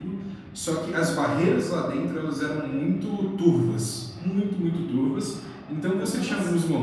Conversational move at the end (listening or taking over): listening